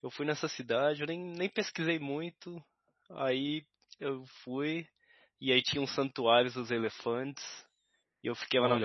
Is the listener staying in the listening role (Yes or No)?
No